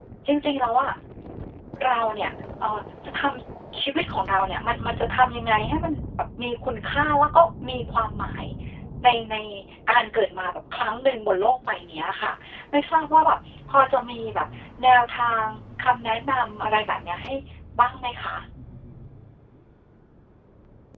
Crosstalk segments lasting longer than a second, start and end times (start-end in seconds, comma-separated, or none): none